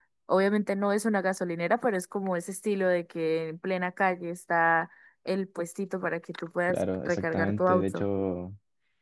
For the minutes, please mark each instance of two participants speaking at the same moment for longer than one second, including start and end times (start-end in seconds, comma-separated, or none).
6.7-8.0